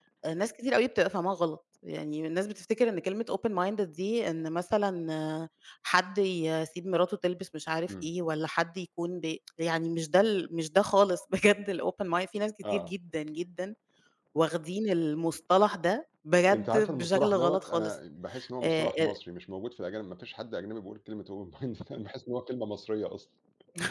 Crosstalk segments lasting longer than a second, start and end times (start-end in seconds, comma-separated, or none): 16.5-17.9